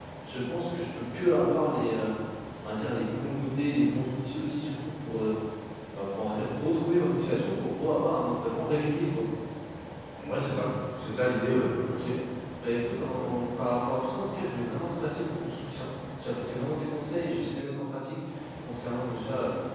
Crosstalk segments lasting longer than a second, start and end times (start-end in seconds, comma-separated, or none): none